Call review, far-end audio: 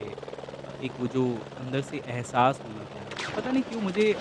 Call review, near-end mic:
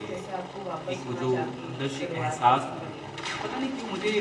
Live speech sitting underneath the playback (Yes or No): Yes